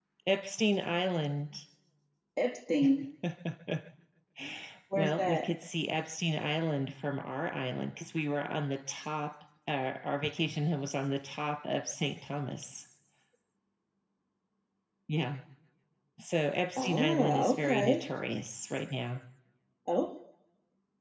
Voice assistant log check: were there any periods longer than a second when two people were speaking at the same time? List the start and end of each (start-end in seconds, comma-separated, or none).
16.8-18.0